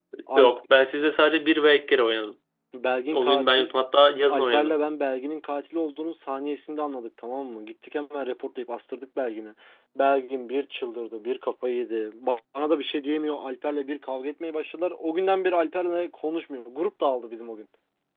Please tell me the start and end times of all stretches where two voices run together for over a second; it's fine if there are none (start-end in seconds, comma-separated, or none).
none